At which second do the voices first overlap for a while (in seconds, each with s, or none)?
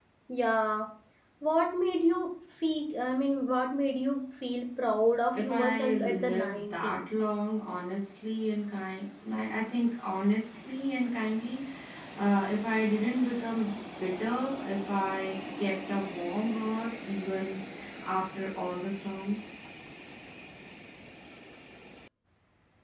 5.3 s